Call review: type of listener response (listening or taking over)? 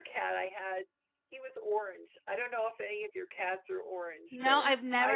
taking over